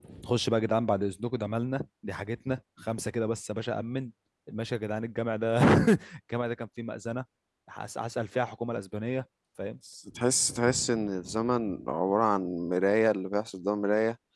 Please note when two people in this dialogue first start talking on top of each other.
none

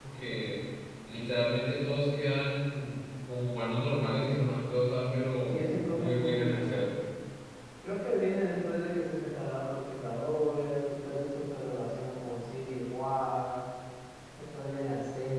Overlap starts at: 5.5 s

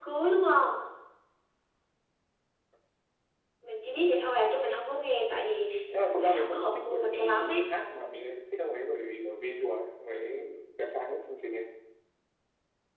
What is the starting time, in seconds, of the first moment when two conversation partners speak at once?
6.0 s

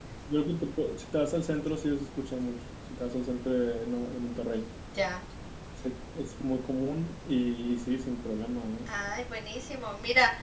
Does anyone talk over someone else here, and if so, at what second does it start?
none

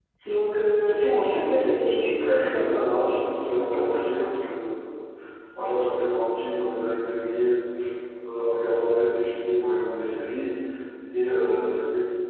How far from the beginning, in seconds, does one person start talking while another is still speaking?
0.8 s

